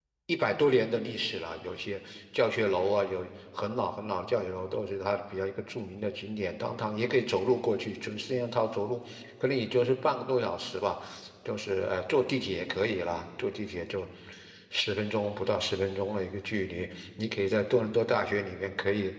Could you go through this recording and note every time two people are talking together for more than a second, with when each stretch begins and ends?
none

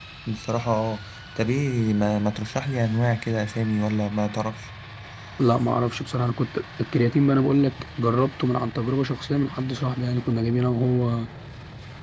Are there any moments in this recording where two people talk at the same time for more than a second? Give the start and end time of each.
none

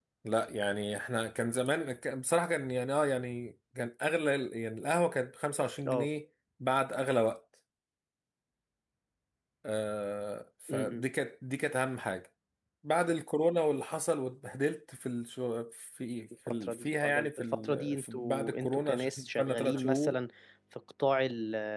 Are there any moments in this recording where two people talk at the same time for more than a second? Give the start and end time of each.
16.5-20.2

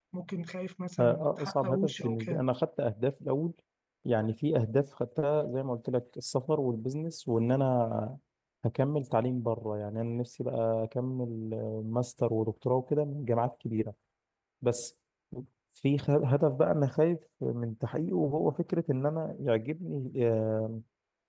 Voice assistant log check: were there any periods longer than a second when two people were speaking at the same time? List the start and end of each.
1.0-2.4

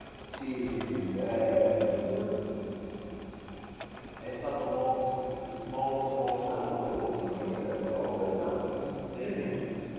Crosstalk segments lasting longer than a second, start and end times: 6.5-8.4

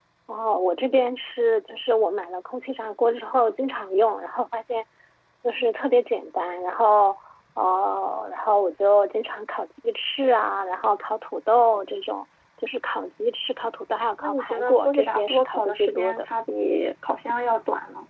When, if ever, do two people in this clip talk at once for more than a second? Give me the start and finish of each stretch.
14.2-16.3

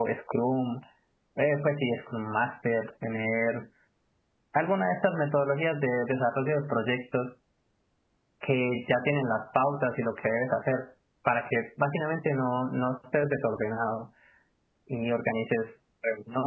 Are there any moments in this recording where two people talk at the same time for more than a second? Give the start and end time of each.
none

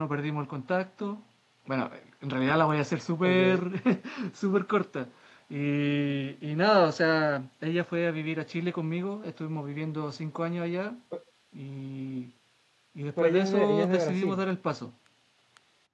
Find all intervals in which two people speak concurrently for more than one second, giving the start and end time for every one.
13.2-14.4

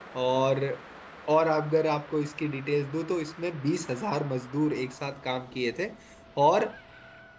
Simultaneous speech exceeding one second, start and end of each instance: none

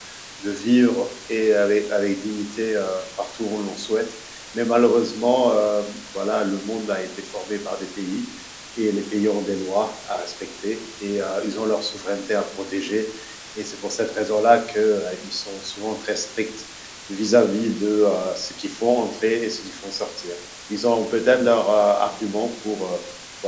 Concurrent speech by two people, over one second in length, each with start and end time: none

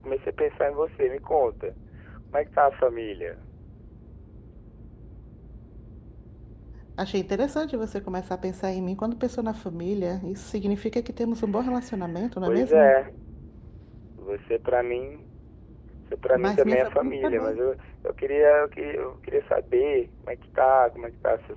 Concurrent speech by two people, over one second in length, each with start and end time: 16.3-17.6

